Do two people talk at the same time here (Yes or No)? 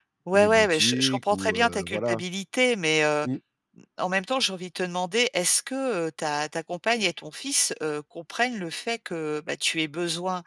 Yes